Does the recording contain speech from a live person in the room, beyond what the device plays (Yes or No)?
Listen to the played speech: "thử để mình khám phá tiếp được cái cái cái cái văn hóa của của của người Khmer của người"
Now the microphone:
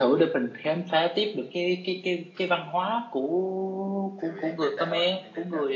Yes